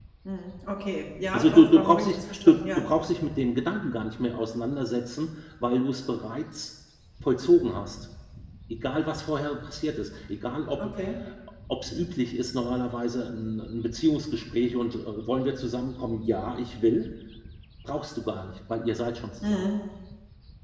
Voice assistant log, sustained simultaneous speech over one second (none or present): present